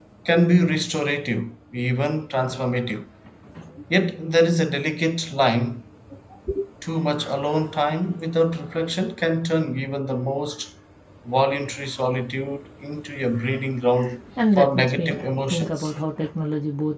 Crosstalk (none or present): present